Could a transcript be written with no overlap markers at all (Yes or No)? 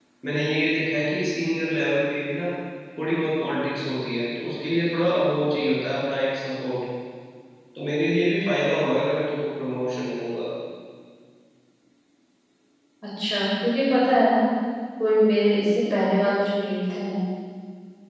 Yes